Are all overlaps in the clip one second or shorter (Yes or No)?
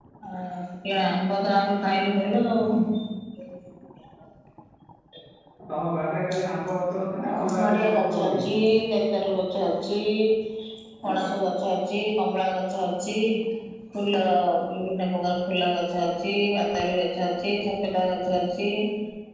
No